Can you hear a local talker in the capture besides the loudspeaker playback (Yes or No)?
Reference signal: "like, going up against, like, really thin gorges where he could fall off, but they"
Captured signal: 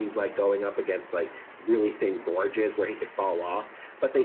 No